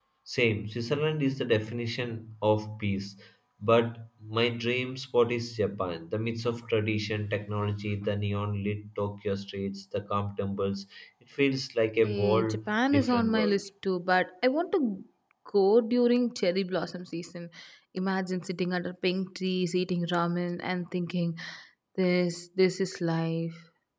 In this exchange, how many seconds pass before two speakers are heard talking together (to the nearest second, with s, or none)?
12 s